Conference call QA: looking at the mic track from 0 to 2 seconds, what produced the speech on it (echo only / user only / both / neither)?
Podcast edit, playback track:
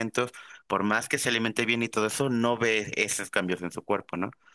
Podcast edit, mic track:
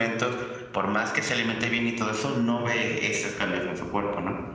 echo only